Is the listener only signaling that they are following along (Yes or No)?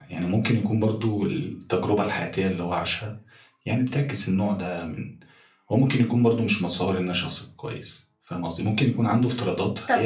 Yes